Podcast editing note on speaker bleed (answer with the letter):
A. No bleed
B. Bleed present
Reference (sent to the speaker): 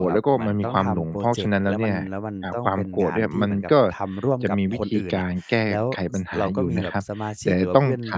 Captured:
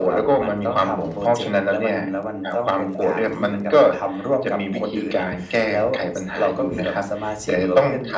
B